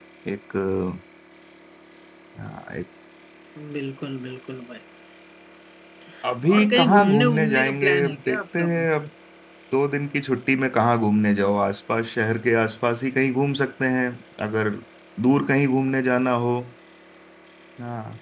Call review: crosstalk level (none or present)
present